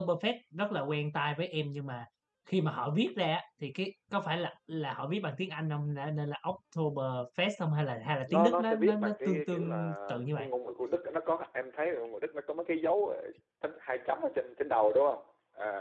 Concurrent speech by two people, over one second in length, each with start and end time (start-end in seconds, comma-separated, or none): 8.3-10.5